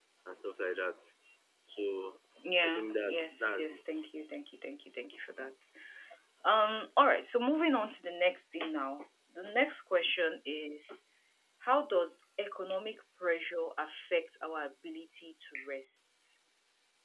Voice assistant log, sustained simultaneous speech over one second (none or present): present